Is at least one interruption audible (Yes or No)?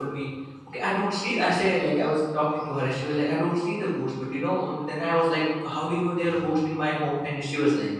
No